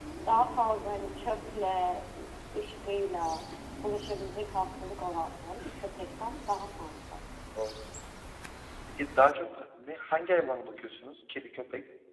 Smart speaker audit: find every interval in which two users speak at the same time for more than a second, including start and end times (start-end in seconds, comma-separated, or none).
none